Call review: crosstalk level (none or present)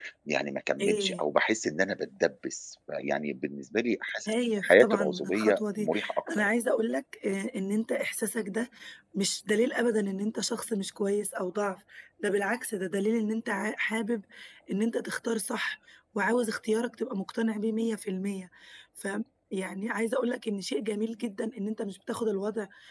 present